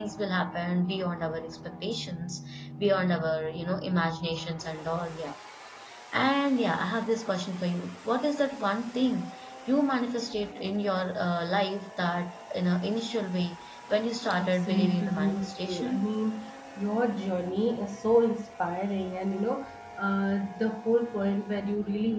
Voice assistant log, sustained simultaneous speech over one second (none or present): present